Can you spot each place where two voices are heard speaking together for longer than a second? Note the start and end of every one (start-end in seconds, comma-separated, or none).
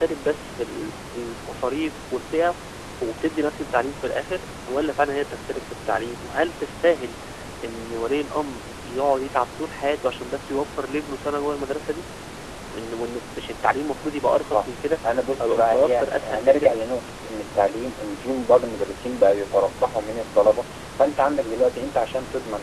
15.4-16.8